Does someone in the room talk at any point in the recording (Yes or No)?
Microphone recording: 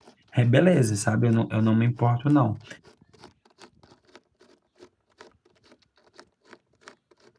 Yes